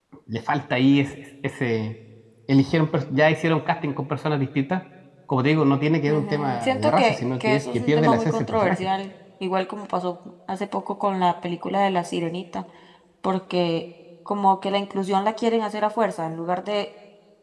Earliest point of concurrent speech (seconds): 6.1 s

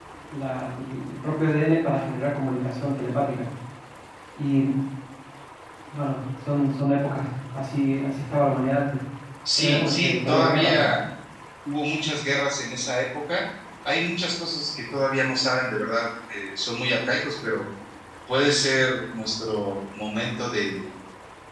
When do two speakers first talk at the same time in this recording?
9.6 s

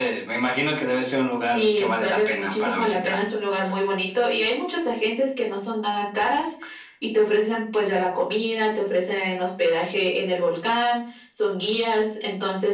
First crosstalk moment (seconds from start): 1.5 s

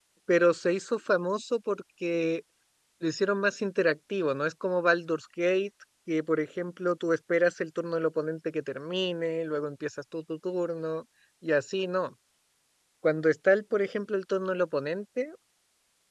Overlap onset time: none

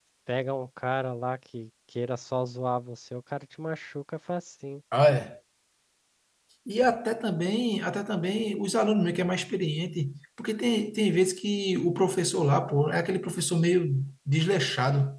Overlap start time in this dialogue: none

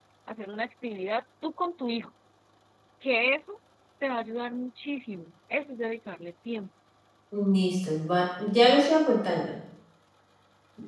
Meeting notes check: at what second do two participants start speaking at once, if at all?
none

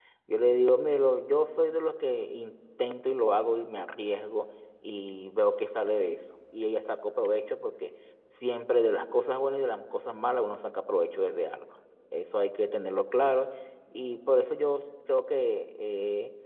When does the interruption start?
none

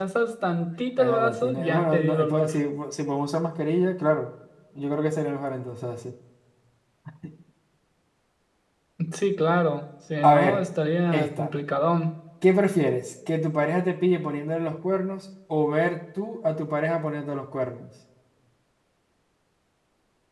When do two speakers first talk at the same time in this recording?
1.0 s

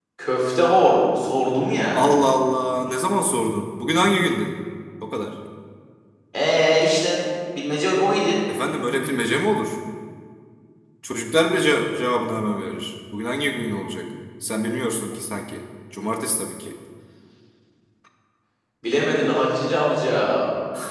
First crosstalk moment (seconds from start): none

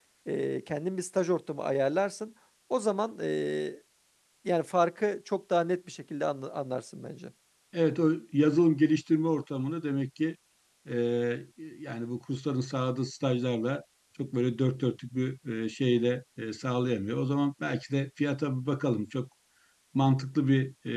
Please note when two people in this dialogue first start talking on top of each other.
none

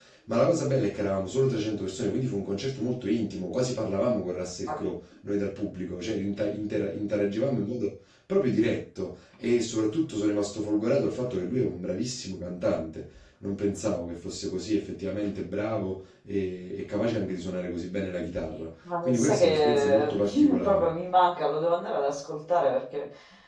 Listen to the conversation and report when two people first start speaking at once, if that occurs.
18.9 s

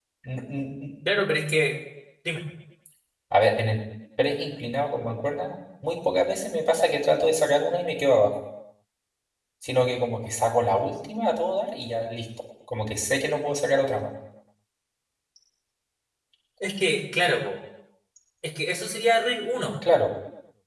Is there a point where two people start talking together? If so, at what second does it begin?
none

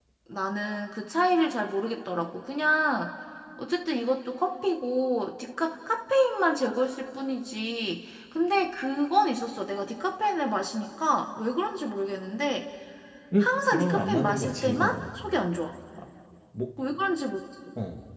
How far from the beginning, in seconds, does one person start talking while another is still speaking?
13.4 s

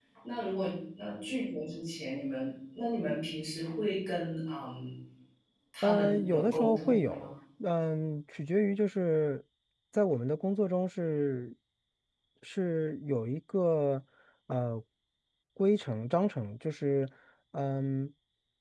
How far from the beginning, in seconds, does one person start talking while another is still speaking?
5.8 s

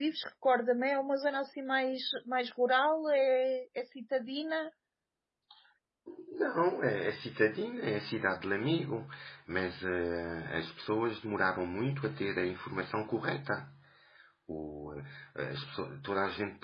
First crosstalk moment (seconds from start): none

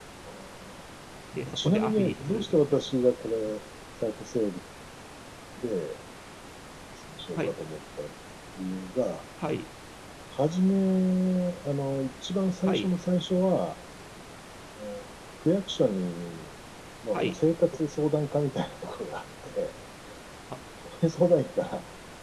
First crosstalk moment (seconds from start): 1.5 s

